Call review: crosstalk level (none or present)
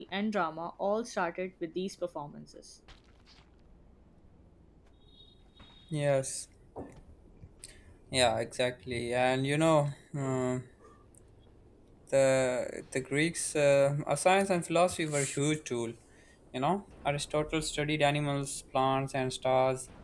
none